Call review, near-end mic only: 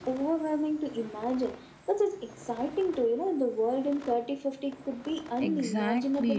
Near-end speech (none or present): present